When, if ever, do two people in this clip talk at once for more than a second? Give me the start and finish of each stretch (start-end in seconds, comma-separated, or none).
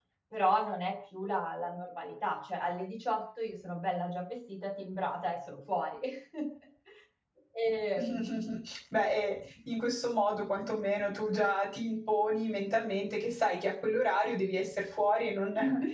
none